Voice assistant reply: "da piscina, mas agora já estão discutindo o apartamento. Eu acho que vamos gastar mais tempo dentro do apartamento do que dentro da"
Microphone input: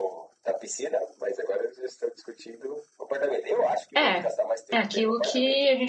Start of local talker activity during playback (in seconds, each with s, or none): 4.0 s